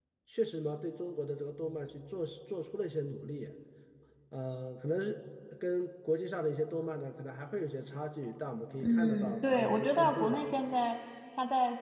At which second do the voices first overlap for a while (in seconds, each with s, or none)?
8.8 s